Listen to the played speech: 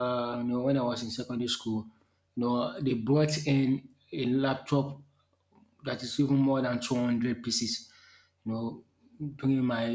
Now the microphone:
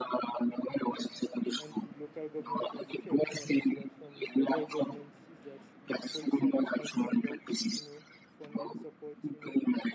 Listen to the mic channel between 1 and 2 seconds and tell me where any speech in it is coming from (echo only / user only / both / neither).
both